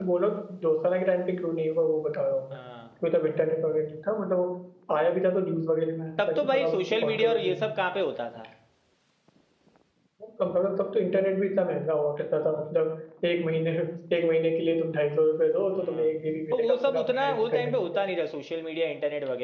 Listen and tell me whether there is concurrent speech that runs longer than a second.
Yes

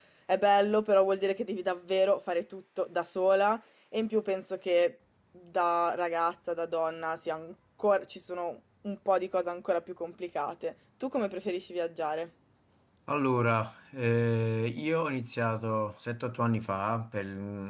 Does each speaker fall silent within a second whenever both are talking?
Yes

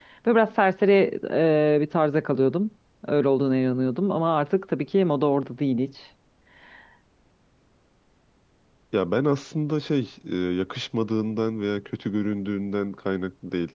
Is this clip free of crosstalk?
Yes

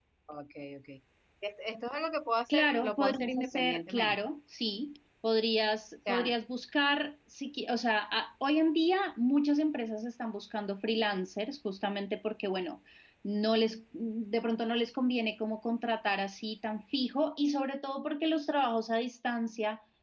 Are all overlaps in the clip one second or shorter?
No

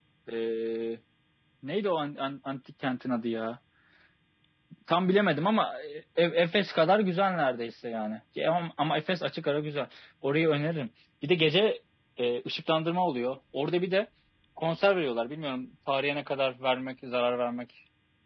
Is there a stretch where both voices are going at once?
No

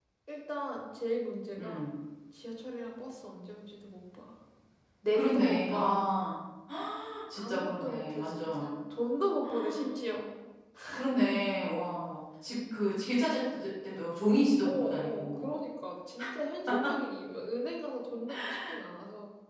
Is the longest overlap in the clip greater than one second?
Yes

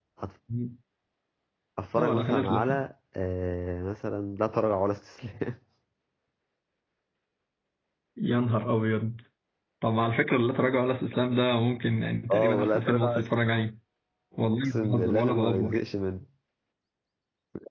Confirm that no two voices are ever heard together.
No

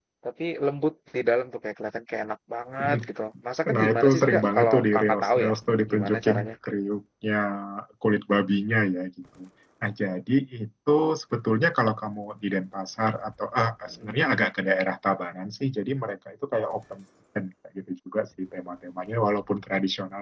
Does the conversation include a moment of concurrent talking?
Yes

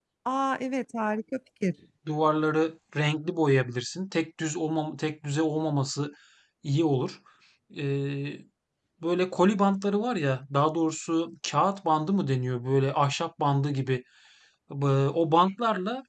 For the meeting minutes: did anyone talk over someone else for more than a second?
No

